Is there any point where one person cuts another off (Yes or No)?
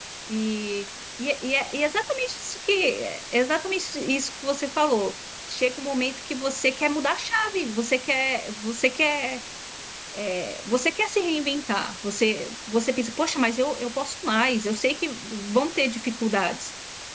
No